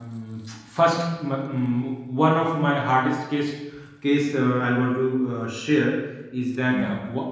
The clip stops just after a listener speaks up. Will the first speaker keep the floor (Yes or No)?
Yes